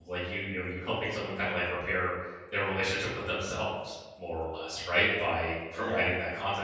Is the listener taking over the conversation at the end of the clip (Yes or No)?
No